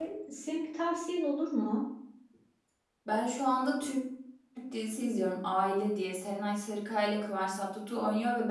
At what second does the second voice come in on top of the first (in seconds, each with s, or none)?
none